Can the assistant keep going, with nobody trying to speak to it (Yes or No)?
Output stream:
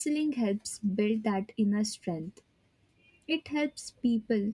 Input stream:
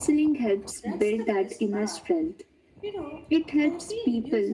No